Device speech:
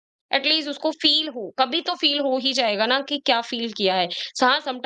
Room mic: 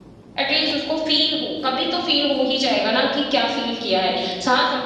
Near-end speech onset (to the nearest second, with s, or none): none